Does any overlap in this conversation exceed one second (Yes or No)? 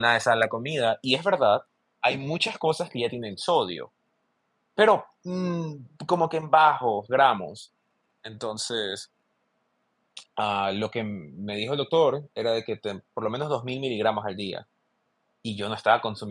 No